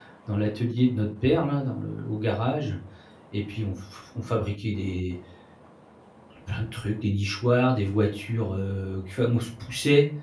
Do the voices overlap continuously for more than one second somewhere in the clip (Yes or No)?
No